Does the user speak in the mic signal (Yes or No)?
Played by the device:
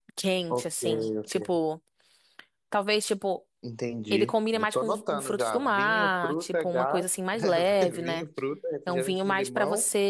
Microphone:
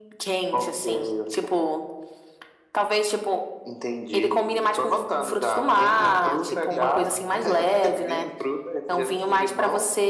Yes